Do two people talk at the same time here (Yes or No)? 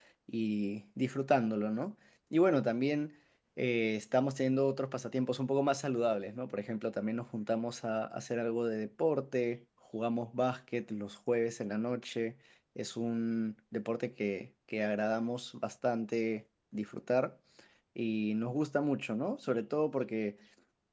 No